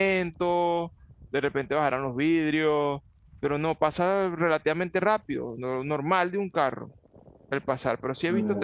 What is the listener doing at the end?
taking over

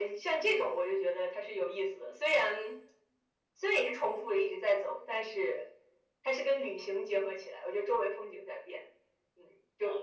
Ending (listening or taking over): taking over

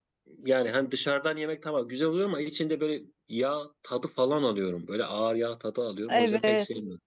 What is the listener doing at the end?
taking over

